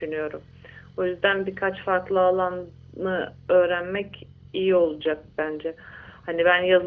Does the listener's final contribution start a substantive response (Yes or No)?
No